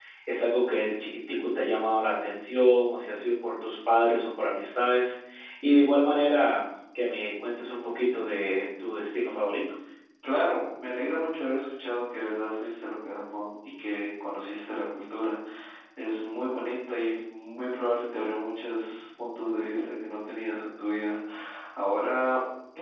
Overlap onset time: none

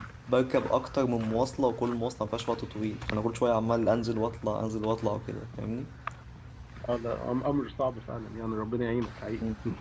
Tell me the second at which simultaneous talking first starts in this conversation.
none

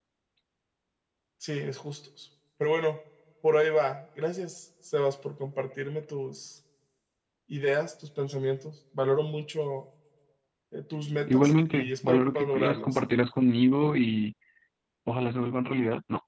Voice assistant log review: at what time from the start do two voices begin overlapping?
11 s

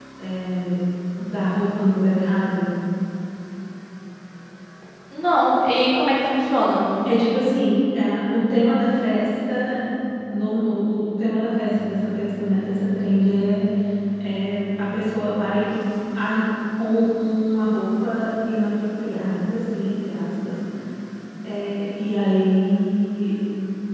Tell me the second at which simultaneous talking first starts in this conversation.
none

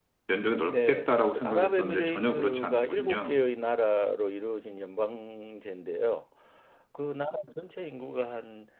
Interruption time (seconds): 1 s

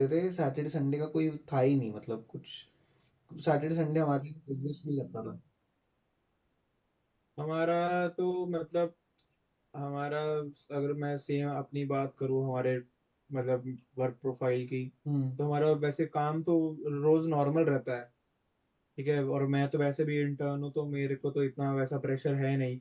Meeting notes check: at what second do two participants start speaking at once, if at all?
none

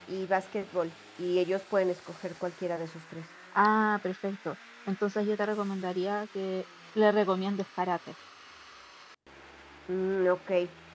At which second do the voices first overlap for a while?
none

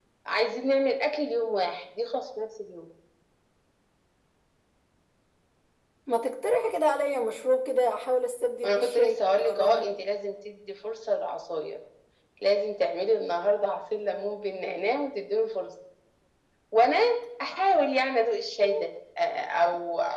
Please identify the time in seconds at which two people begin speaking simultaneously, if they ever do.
9 s

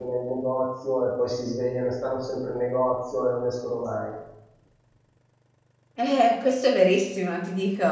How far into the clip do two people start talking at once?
none

